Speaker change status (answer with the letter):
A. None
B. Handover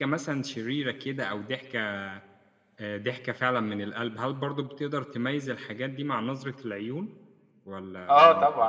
B